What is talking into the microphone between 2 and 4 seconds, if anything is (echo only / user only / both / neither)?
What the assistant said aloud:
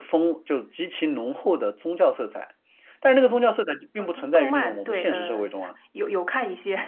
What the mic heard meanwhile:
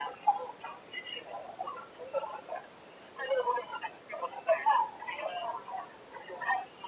echo only